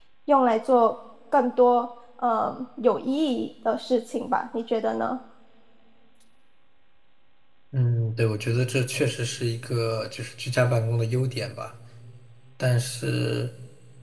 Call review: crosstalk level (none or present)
none